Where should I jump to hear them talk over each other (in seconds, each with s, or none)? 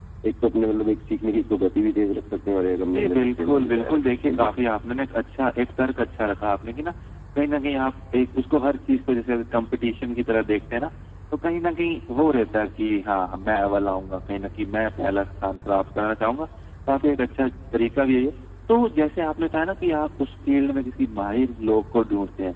2.9 s